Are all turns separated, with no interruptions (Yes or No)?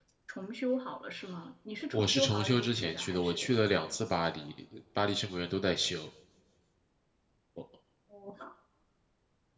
No